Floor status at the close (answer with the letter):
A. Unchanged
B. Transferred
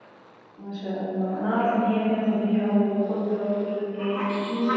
B